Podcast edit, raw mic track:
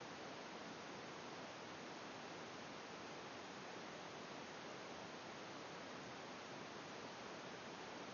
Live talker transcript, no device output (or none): none